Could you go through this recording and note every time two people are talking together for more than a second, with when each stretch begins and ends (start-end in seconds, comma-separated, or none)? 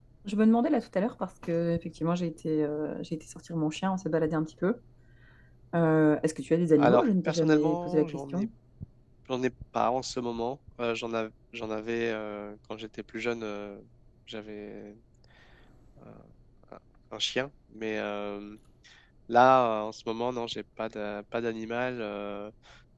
6.8-8.5